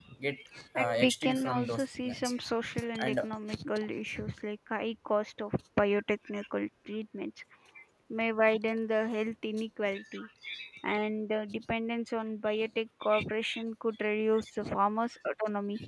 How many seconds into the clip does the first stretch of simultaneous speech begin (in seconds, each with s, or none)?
0.8 s